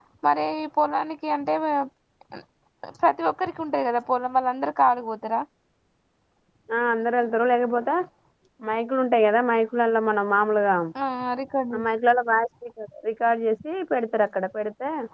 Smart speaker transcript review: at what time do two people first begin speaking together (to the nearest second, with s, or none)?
none